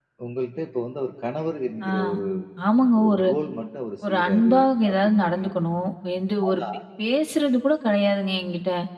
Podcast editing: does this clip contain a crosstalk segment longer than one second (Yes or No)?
Yes